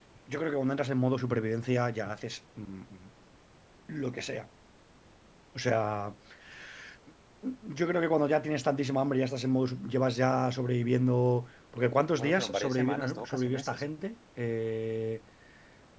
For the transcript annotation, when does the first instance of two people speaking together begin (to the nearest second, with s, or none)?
12 s